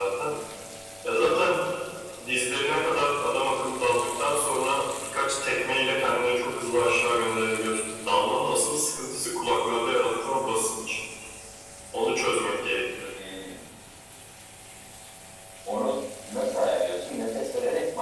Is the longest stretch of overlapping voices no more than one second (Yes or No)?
Yes